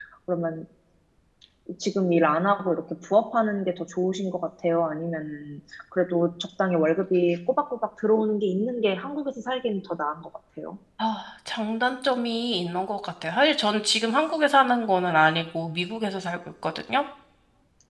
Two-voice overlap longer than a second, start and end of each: none

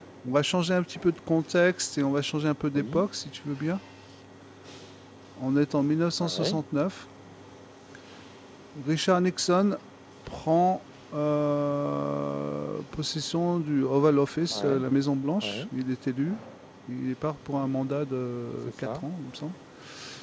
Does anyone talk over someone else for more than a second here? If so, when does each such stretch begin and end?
none

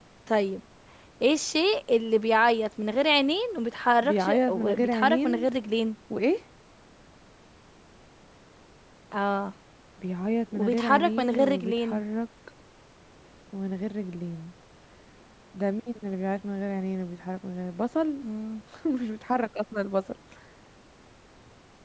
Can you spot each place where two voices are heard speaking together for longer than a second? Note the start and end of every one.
4.0-5.5, 10.5-12.0

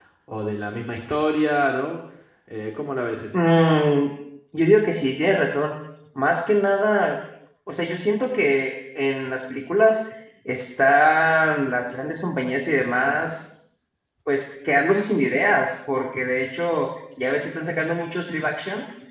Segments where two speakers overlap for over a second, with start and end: none

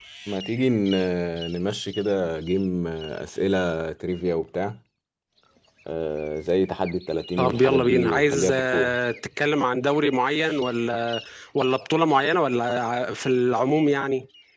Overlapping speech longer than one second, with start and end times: 7.4-8.9

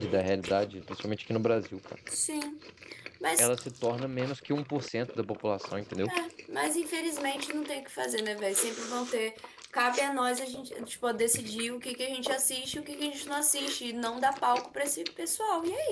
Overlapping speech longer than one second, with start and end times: none

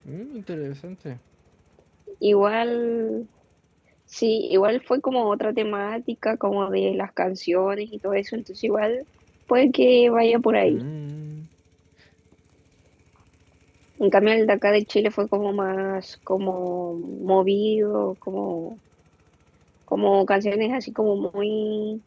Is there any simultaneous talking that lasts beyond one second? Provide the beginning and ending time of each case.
none

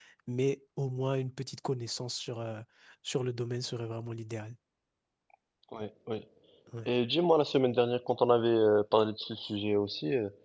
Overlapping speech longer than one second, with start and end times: none

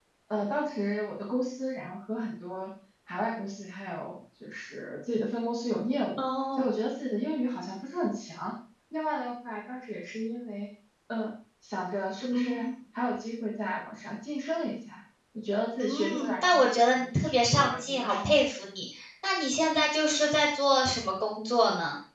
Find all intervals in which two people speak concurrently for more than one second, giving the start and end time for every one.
15.8-18.3

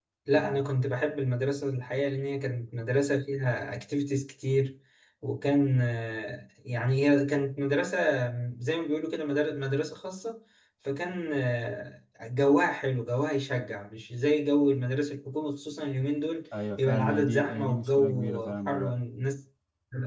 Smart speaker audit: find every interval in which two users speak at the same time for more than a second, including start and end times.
16.8-18.9

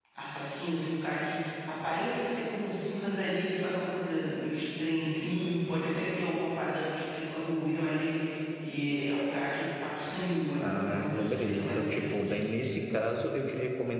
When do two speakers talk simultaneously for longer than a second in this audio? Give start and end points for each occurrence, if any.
10.6-12.4

